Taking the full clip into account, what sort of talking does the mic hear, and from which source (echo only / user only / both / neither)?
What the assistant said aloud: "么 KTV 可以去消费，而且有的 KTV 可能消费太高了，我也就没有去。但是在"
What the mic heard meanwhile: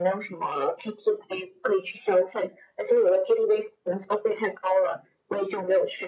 echo only